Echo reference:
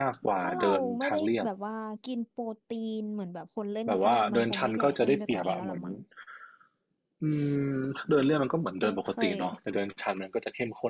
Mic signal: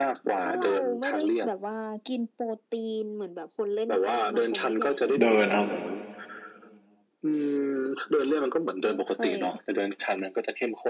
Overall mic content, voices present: both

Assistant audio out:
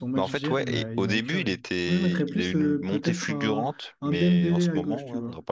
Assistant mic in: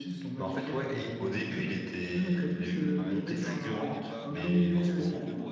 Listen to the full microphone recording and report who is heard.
both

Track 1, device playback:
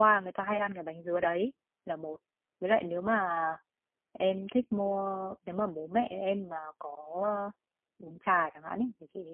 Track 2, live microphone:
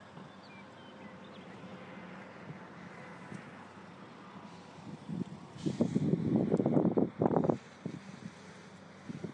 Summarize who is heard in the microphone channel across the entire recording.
neither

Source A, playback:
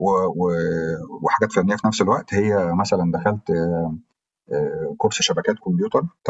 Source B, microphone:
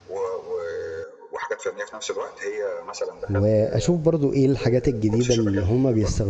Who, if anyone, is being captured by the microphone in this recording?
both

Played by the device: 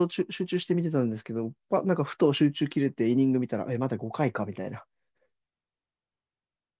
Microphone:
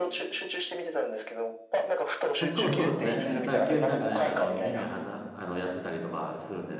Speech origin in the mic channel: both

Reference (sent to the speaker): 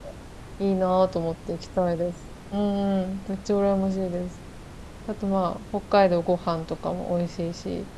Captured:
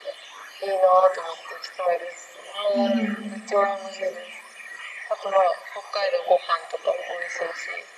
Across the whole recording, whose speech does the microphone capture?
both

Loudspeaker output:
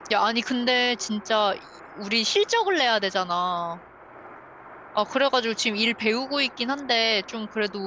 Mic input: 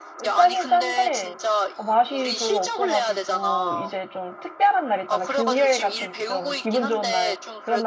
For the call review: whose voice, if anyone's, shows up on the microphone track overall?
both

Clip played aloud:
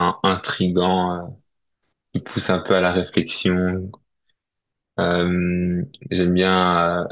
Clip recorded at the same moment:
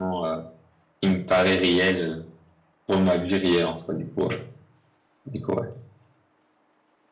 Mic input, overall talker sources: user only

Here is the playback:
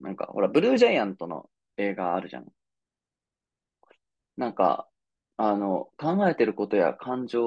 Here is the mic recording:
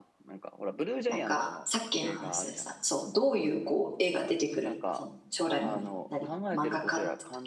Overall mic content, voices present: both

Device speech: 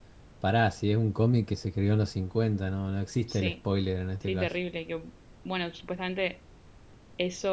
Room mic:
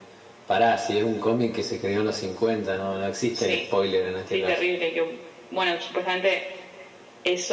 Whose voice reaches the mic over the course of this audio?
echo only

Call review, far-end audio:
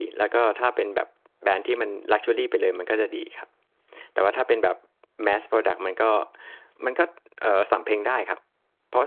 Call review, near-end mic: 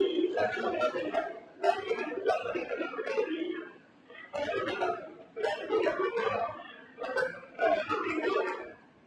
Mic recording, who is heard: echo only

